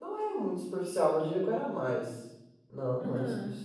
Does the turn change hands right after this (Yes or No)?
No